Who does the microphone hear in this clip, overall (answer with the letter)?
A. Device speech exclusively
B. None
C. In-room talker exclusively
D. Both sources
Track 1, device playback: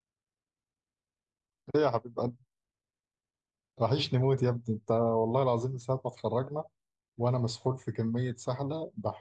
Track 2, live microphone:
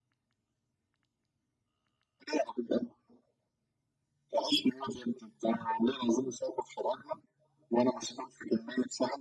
A